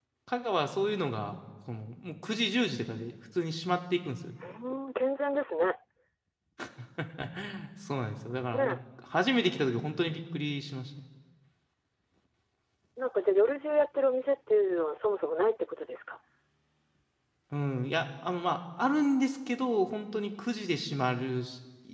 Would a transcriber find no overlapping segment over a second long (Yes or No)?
Yes